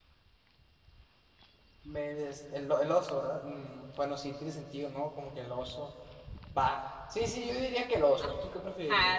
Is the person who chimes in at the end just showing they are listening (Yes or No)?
No